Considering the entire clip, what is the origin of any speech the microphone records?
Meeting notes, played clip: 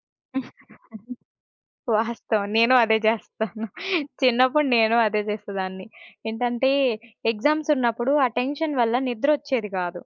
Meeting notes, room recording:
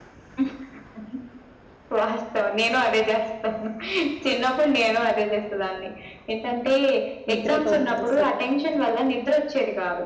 both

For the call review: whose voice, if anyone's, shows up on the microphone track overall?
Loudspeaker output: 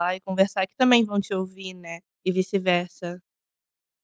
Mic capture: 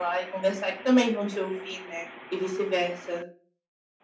echo only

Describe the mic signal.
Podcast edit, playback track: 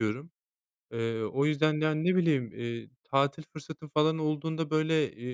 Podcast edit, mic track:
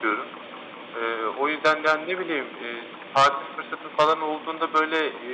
echo only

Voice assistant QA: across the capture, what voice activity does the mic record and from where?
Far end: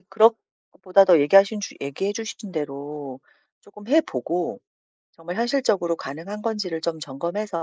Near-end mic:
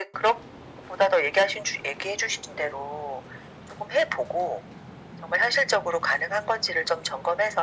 echo only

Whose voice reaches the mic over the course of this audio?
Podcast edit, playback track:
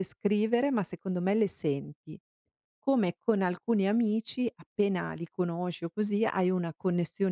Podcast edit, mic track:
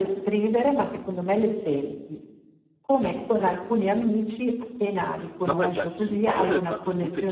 both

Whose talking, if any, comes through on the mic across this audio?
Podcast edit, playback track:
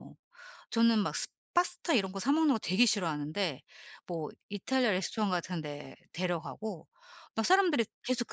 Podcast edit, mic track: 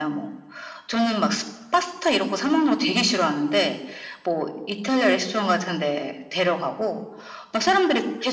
echo only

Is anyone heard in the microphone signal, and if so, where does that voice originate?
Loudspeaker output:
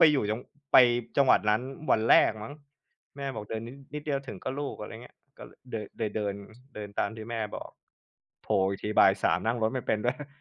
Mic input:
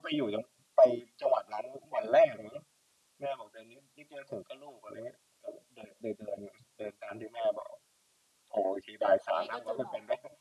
both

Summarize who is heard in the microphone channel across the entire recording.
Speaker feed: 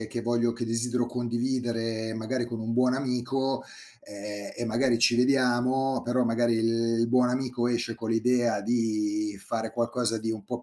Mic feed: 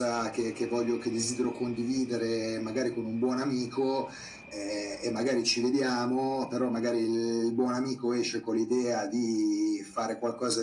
echo only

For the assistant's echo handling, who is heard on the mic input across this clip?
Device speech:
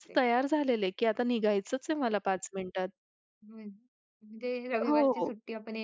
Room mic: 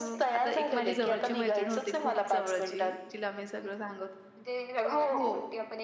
both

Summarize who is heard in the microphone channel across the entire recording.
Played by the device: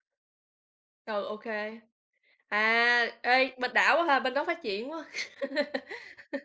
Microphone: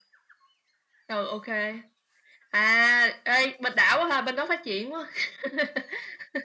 echo only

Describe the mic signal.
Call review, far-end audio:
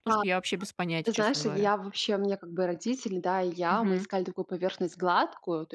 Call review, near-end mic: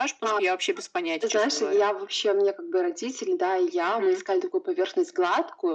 echo only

